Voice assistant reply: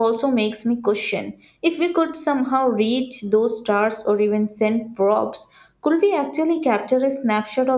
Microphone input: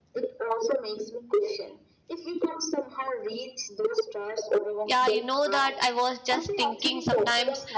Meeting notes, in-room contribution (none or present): present